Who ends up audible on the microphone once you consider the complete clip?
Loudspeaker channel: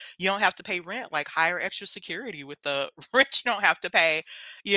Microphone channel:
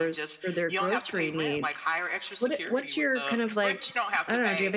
both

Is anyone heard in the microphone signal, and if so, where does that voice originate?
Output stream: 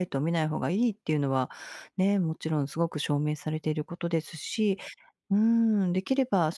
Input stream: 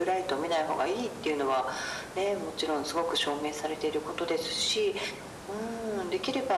echo only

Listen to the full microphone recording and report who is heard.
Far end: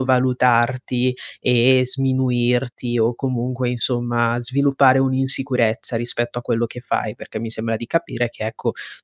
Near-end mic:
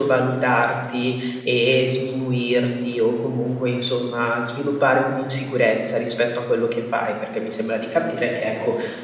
echo only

